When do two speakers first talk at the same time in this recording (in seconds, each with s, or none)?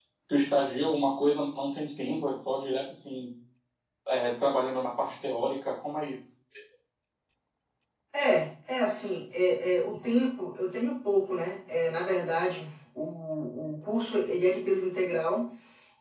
none